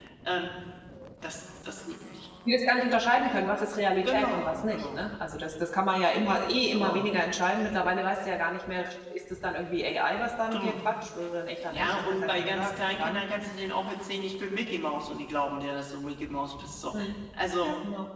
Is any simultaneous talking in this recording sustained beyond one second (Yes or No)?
Yes